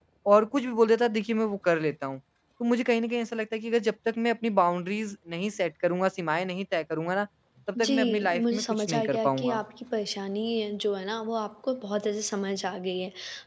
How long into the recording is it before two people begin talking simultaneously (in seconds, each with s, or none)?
7.8 s